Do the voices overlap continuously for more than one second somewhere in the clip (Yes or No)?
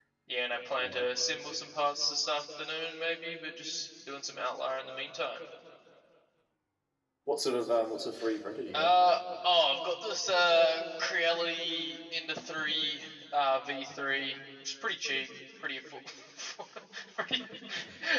No